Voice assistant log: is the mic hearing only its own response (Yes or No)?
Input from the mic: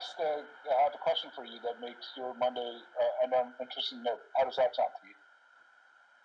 Yes